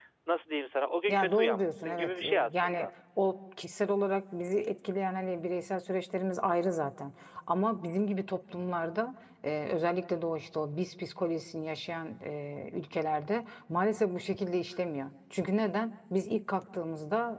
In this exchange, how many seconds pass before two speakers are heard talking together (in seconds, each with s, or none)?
1.1 s